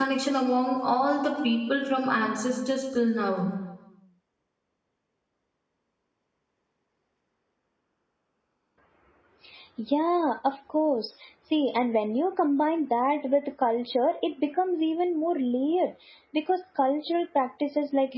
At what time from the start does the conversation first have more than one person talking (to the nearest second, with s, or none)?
none